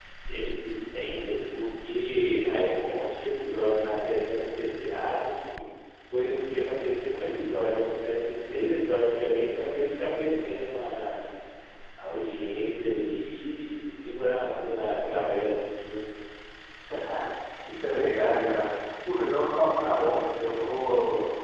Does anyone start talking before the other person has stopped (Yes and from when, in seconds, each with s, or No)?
No